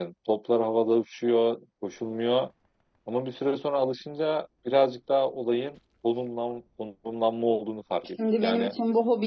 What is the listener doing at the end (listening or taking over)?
taking over